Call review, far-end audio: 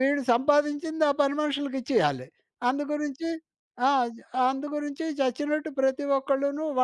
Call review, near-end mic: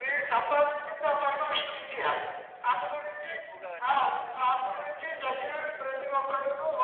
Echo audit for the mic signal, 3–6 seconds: both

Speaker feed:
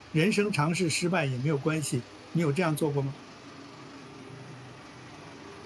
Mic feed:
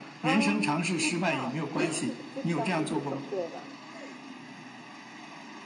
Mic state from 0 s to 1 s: both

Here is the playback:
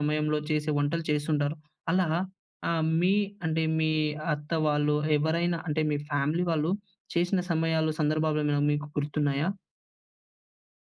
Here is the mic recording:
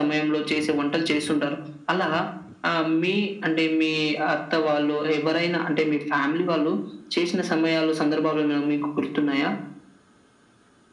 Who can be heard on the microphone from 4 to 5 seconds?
echo only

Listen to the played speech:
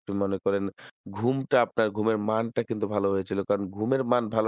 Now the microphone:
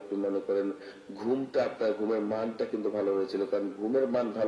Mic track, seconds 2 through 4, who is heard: echo only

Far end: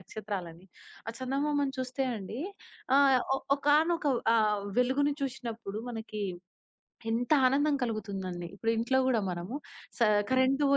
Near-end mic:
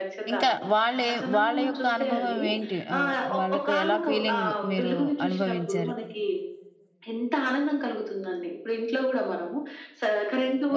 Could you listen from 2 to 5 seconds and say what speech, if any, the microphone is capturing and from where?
both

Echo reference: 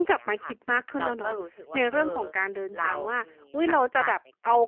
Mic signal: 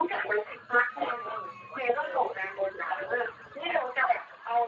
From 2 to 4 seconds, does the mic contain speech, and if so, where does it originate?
echo only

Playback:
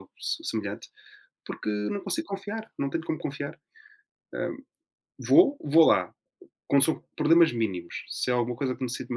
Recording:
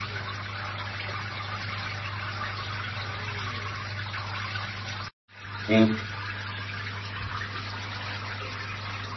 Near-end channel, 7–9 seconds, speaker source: neither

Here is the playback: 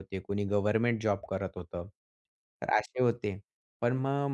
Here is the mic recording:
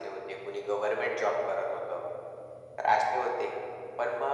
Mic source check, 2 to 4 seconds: echo only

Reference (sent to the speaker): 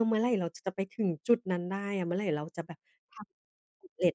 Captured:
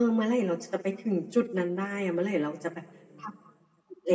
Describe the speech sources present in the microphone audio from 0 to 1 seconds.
echo only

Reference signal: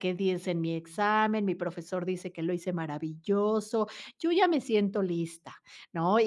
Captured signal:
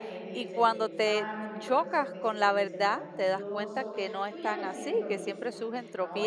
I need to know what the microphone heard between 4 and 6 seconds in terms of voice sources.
both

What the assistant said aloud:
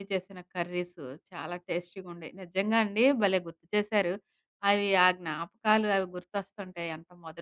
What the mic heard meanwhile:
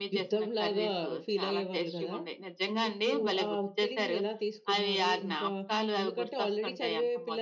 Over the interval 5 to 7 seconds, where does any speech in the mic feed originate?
both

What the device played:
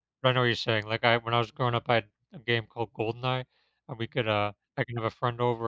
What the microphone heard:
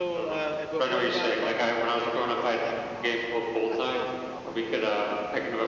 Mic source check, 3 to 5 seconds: both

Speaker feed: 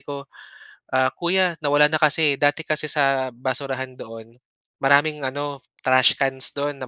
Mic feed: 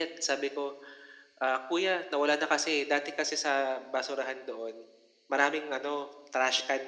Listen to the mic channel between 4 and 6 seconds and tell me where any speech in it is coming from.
echo only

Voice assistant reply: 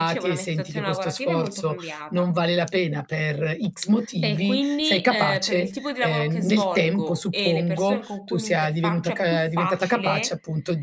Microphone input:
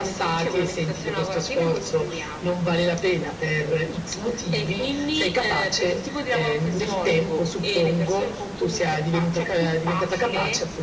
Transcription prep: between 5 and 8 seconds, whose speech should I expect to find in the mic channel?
echo only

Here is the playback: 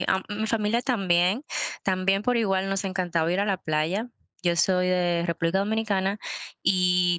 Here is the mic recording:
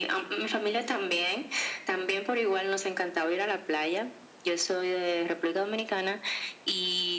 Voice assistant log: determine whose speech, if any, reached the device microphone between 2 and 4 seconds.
echo only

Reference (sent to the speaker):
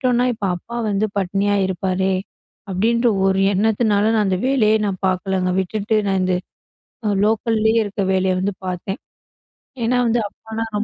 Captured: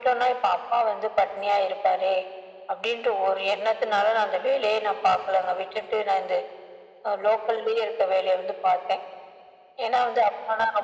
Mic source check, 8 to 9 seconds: echo only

